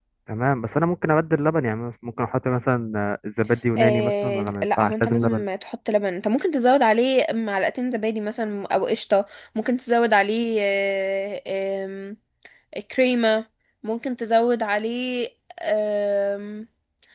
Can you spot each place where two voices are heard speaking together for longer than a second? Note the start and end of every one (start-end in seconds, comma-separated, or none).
3.8-5.5